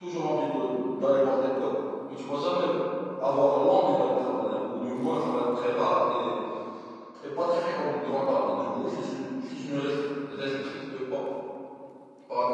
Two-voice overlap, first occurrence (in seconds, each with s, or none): none